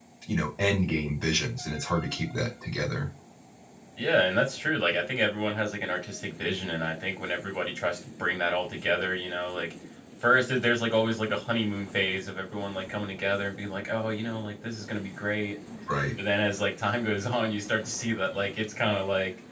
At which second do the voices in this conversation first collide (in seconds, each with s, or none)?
none